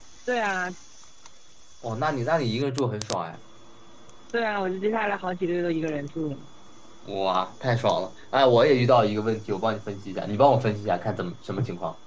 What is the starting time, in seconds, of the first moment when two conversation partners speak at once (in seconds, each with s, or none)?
none